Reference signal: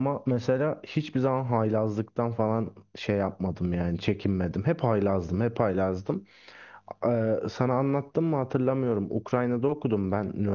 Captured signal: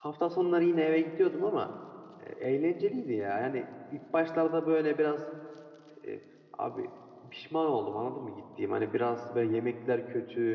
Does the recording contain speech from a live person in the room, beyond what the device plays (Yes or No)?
Yes